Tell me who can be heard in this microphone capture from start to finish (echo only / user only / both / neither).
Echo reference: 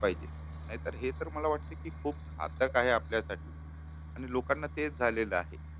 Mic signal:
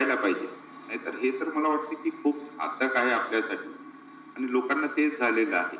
echo only